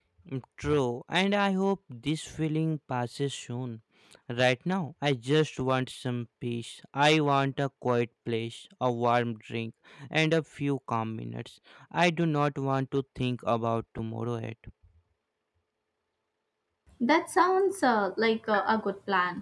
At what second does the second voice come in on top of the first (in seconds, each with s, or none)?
none